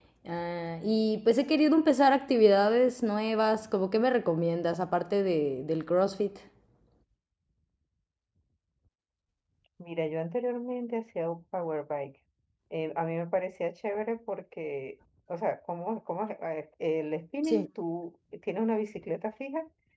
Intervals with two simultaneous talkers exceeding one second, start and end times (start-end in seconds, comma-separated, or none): none